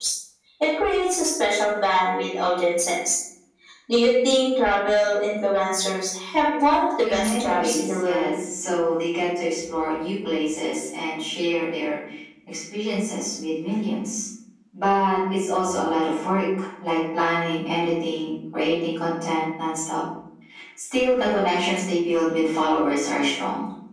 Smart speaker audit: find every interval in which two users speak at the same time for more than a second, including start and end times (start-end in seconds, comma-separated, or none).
7.0-8.3